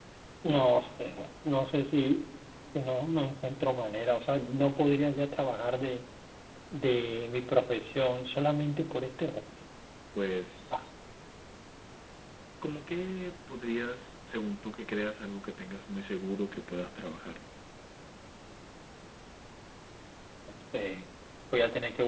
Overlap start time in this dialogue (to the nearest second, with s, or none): none